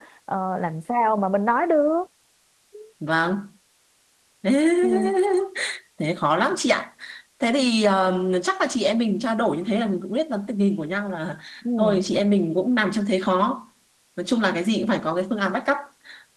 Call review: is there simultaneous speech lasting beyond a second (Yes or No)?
No